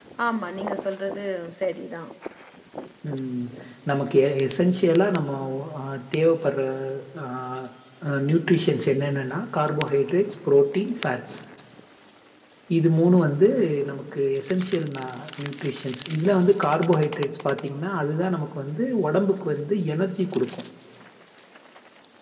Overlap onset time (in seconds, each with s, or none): none